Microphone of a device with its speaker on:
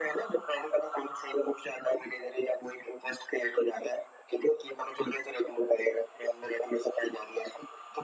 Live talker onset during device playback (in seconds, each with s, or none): none